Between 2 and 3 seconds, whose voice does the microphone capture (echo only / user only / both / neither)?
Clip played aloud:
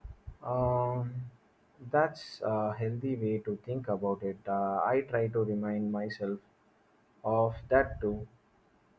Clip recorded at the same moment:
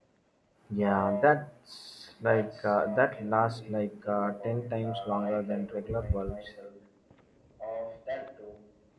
both